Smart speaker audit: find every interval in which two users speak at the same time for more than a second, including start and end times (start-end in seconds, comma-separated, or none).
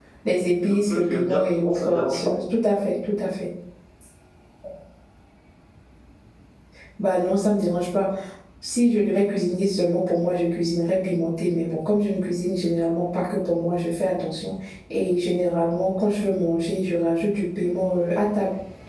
0.6-2.4